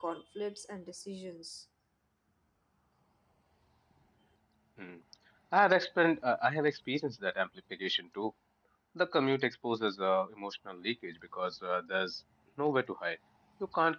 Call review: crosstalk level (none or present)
none